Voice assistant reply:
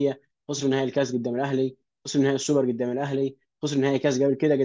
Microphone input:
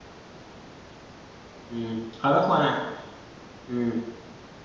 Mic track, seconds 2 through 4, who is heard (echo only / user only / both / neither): user only